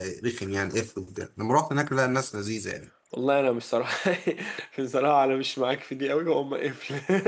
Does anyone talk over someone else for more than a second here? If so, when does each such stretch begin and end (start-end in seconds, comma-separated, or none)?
none